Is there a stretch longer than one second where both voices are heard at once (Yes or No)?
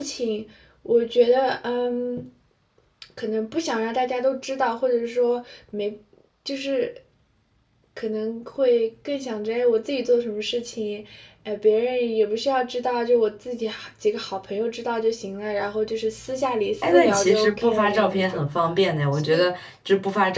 Yes